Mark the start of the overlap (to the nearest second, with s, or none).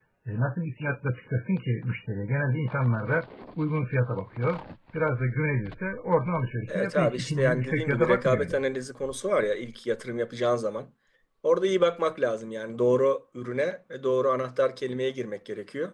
7 s